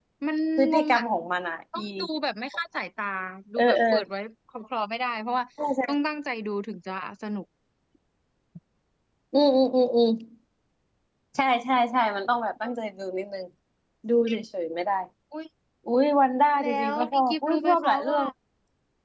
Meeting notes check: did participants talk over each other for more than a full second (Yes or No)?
Yes